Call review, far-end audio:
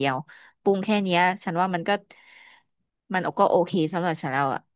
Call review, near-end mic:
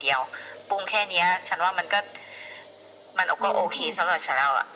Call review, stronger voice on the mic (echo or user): echo